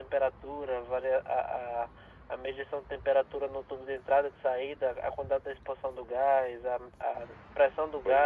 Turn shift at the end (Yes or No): No